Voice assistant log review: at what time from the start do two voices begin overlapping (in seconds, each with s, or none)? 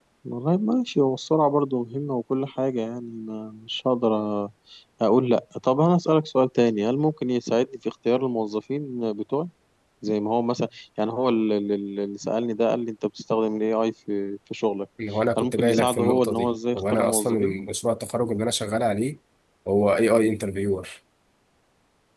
15.4 s